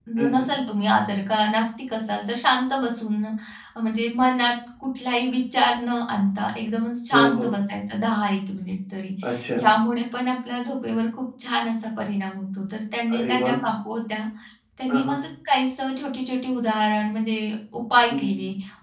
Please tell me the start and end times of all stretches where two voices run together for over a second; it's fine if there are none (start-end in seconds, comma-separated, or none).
none